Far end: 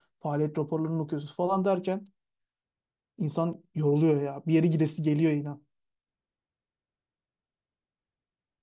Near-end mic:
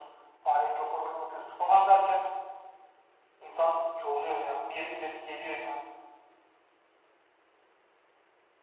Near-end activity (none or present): none